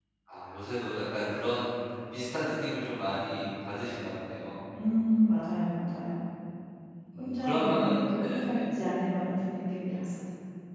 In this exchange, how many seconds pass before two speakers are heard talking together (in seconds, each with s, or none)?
7.2 s